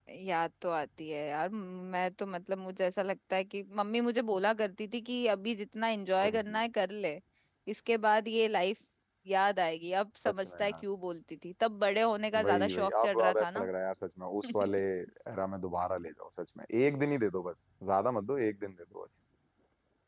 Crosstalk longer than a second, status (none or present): present